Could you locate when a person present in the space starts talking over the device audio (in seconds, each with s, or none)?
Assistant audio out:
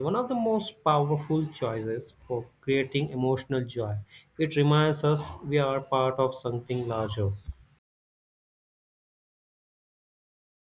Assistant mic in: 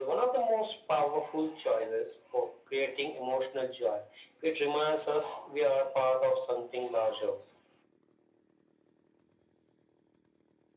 none